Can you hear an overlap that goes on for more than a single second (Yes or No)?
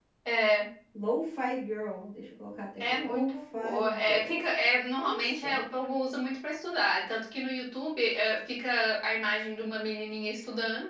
Yes